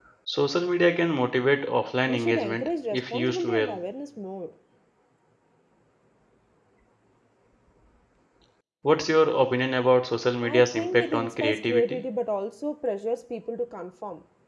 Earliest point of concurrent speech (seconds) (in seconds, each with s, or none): 2.1 s